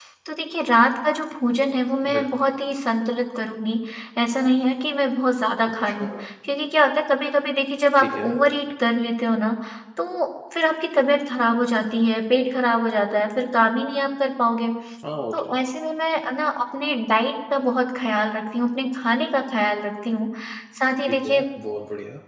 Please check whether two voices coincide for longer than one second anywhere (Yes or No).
No